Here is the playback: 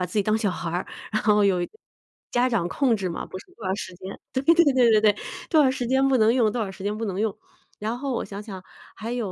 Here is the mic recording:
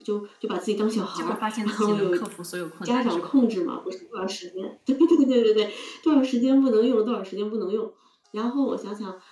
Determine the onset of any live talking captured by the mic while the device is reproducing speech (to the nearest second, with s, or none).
1 s